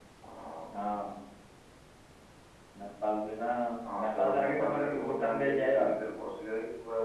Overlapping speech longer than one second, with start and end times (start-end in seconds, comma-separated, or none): 4.0-6.0